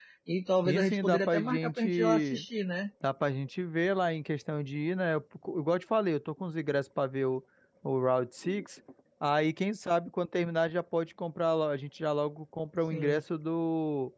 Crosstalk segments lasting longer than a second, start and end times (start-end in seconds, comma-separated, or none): 0.6-2.4